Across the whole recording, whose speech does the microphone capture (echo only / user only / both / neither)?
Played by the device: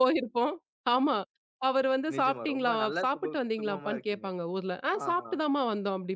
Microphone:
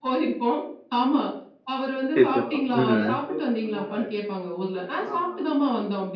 both